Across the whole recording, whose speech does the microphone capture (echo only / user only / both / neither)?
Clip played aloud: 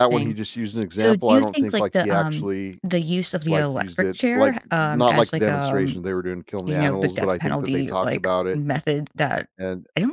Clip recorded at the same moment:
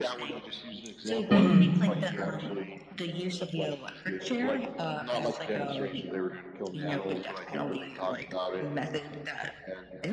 both